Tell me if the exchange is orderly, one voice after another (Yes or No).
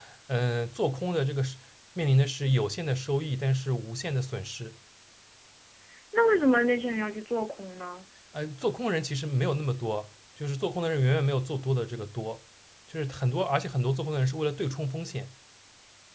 Yes